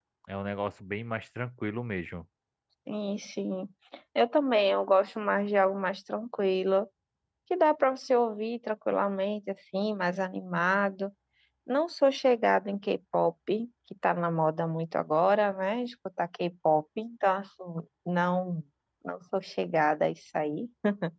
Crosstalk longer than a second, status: none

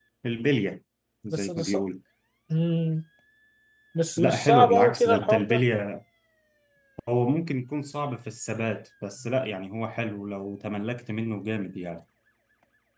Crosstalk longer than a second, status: present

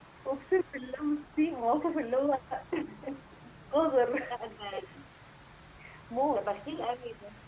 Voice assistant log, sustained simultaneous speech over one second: none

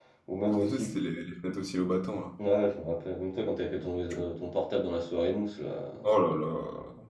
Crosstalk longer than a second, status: none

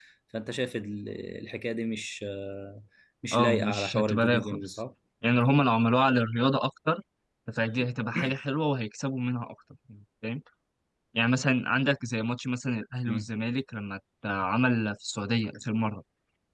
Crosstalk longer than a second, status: present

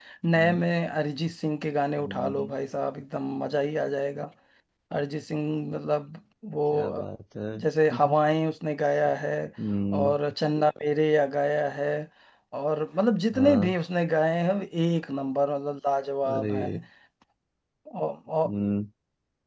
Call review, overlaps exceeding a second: none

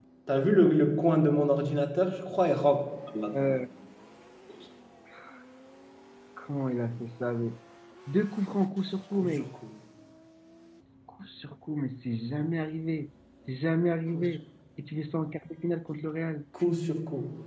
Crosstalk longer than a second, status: none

